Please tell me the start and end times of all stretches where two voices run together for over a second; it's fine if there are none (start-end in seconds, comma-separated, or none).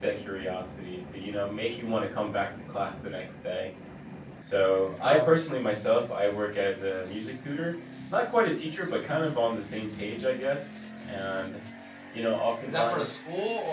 none